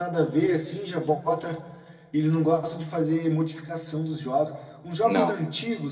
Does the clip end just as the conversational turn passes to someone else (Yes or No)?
No